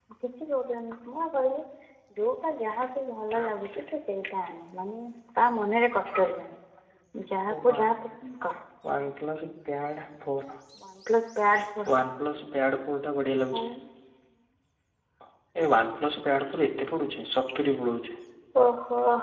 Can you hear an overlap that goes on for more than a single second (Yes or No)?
No